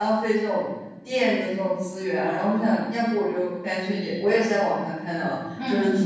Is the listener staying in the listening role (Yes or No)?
Yes